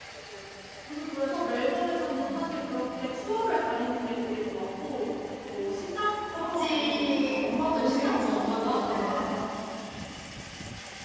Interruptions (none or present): present